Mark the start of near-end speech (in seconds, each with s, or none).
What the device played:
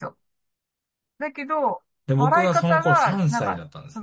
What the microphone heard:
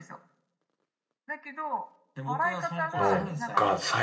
3.0 s